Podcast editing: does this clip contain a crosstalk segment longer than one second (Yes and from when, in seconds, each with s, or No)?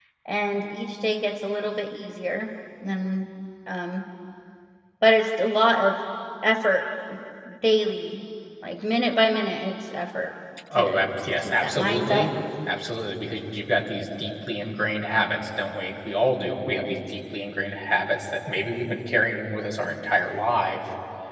Yes, from 10.8 s